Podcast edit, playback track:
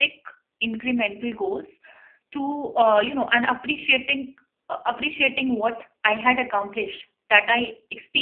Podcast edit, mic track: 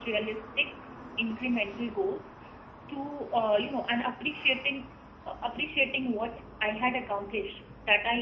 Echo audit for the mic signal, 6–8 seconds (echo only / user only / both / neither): echo only